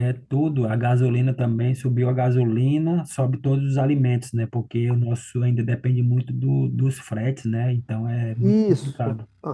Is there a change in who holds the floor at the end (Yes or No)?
Yes